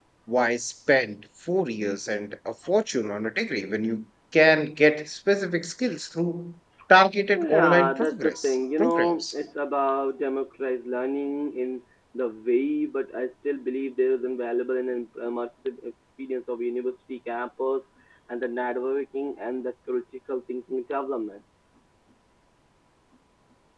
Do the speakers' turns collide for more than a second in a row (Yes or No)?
Yes